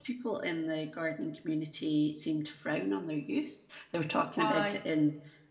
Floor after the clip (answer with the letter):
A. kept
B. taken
A